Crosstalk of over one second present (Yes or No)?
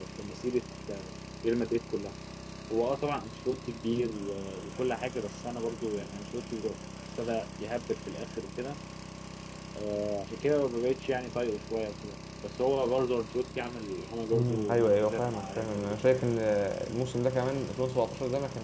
Yes